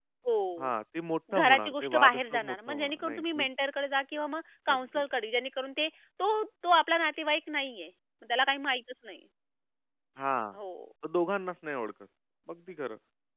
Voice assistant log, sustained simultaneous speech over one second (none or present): present